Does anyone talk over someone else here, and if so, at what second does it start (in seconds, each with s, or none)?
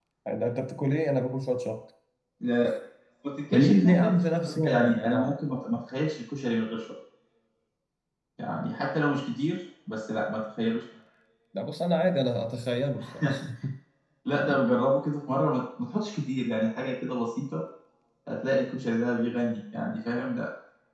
3.5 s